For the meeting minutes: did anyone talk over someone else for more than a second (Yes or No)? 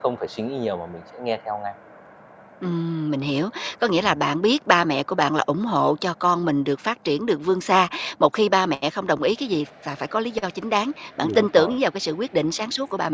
No